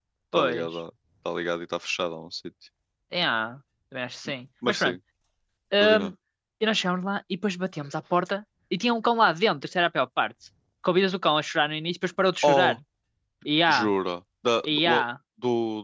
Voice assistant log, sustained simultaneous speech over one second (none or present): none